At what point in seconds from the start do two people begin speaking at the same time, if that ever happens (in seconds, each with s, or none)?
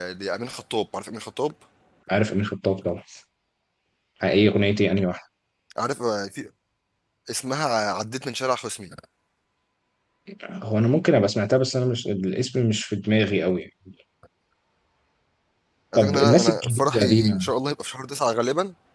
15.9 s